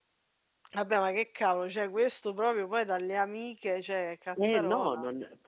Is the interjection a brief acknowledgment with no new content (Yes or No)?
No